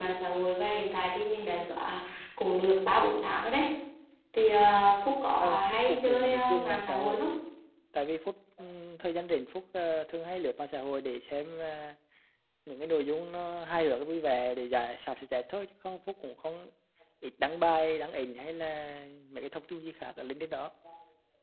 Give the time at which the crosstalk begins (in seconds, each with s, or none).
5.4 s